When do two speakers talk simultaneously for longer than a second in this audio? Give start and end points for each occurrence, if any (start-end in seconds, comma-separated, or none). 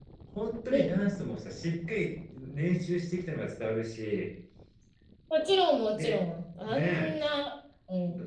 none